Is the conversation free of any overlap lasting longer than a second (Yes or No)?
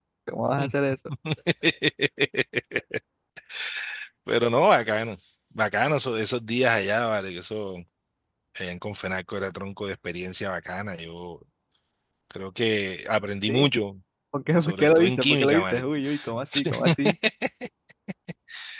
No